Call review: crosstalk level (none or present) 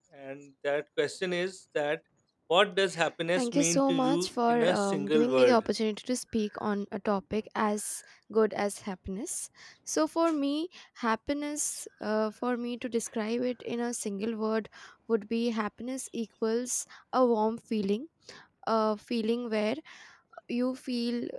present